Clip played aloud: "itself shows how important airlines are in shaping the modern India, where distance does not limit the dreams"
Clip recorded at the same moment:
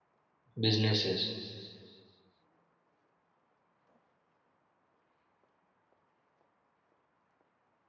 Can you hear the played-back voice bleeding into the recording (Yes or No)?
No